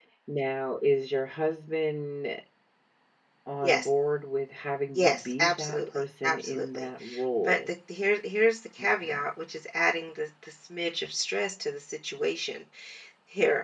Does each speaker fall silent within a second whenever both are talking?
No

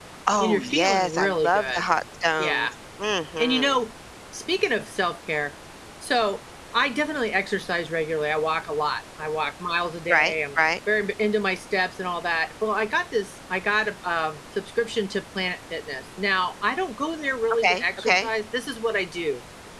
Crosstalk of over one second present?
Yes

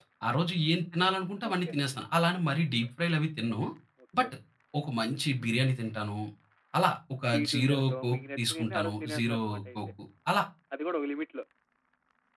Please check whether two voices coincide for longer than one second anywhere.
Yes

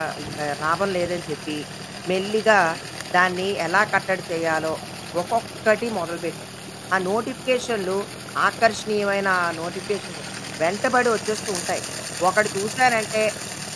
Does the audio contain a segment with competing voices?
No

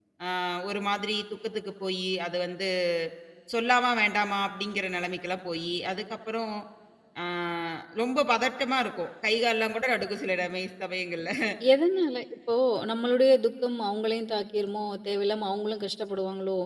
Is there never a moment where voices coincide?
Yes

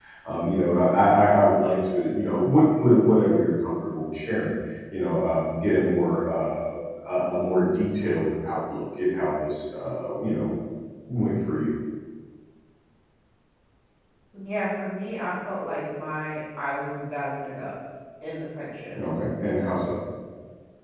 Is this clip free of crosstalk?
Yes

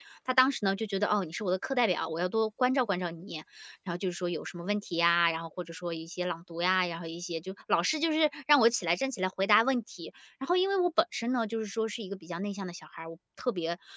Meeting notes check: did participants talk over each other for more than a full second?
No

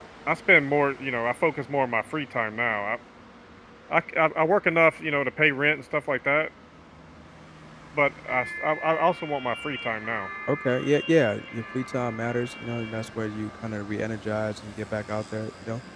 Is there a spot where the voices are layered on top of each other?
No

